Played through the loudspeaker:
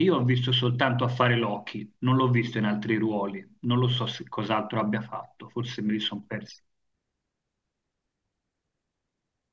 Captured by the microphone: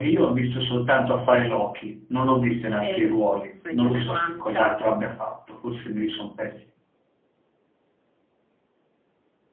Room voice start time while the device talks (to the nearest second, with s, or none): 3 s